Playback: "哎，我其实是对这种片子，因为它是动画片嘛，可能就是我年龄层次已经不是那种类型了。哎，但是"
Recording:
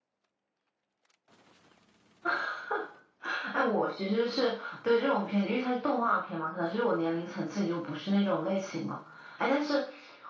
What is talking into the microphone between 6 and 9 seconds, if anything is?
echo only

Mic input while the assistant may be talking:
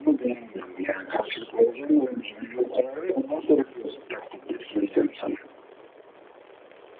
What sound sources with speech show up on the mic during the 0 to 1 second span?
echo only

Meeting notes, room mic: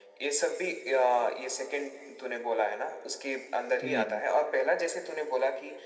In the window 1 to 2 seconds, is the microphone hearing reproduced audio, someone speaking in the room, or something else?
echo only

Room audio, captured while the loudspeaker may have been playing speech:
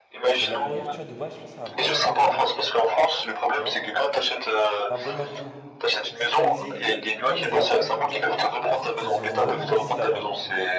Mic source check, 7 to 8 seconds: both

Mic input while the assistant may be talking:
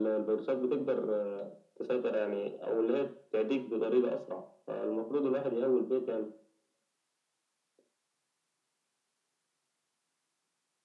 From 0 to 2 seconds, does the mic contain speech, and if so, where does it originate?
echo only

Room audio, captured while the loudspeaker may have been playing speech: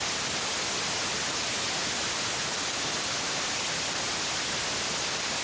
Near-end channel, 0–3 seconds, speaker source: neither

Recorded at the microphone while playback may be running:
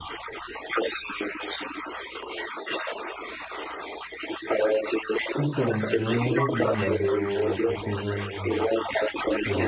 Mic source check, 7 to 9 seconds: both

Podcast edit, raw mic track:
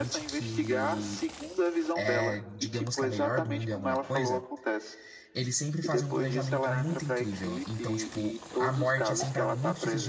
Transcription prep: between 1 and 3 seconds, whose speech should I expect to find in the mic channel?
both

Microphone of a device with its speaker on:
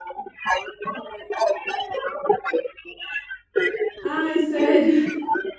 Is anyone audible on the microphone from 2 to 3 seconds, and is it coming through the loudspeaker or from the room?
echo only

